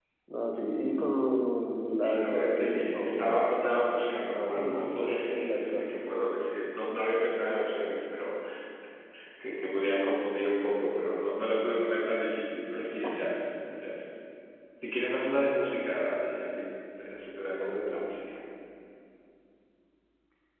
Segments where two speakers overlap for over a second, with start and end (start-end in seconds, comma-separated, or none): 1.9-3.3, 4.3-5.9